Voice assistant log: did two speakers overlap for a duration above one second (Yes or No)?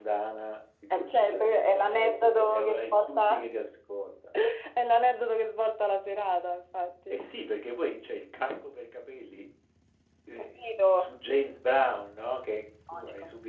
Yes